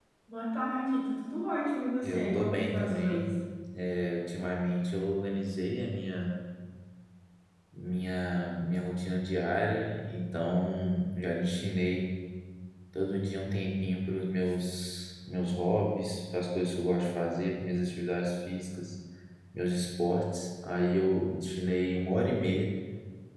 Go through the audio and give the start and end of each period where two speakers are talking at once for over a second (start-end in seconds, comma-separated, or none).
2.0-3.3